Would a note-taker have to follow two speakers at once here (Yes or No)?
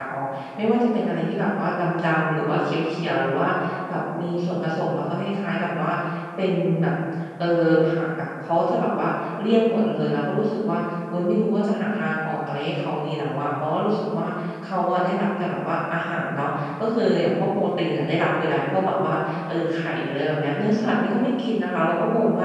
No